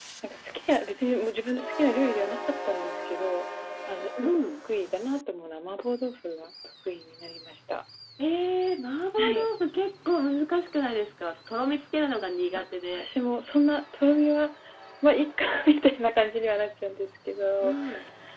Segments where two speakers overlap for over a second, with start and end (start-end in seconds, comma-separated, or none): none